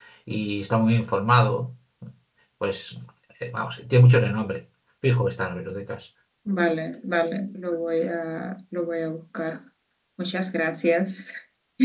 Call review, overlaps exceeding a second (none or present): none